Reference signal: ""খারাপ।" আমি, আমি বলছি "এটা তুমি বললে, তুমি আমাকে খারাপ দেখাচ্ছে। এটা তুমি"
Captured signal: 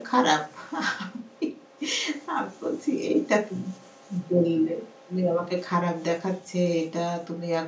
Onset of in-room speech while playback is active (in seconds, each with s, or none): none